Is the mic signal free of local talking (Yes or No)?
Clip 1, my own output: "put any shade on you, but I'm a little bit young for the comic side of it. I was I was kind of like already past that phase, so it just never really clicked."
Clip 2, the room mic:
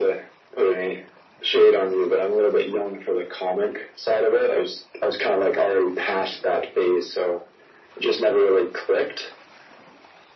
Yes